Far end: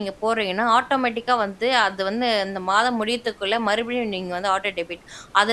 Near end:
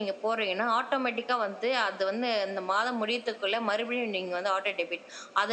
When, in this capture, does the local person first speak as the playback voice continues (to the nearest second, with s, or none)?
none